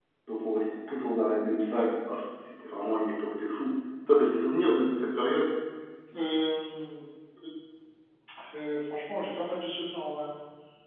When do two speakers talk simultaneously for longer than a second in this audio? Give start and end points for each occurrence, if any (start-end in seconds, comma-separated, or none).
none